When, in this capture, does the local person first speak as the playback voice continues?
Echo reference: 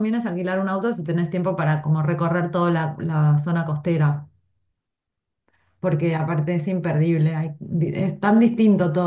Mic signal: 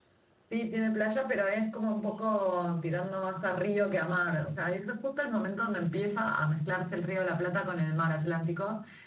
0 s

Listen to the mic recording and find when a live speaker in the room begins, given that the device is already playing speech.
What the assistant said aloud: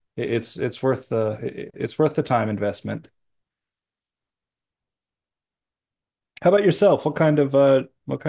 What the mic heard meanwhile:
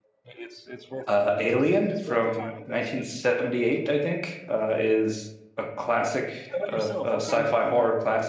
1 s

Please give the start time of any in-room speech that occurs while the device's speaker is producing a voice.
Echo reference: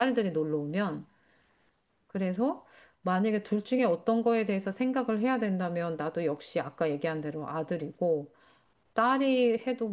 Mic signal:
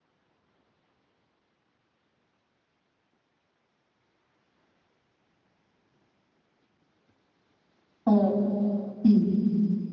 8 s

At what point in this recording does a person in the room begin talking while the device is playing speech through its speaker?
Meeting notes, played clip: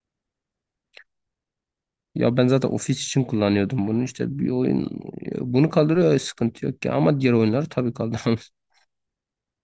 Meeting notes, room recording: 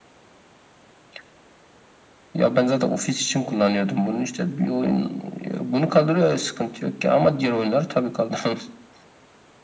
none

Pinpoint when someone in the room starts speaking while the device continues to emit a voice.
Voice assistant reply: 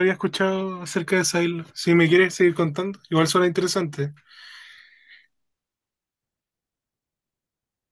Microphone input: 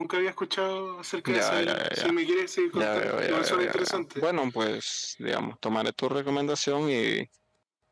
1 s

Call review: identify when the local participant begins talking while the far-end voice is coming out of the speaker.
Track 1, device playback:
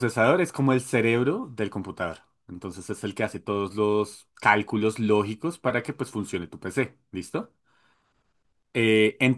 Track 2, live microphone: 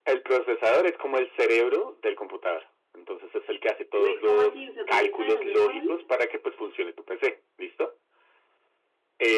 4 s

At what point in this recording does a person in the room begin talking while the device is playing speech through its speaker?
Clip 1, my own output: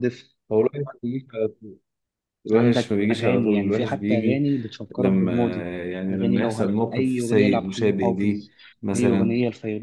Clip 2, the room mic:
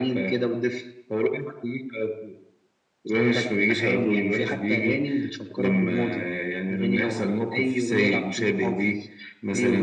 none

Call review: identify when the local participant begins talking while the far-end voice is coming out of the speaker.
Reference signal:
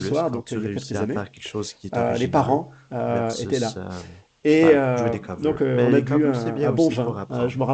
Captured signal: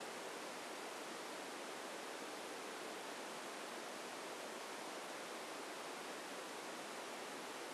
none

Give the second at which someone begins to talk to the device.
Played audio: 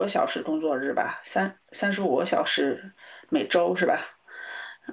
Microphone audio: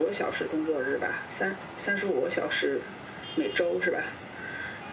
none

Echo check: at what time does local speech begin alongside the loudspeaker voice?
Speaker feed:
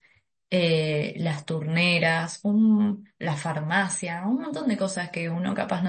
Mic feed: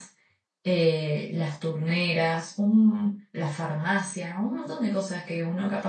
none

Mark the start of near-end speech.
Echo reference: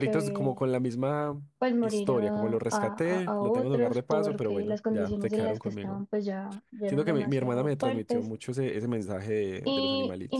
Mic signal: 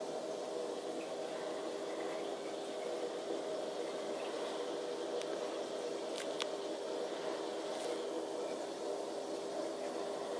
none

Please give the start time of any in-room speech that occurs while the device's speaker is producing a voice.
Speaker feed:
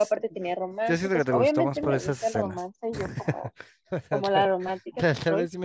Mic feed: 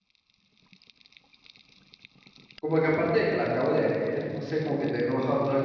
3 s

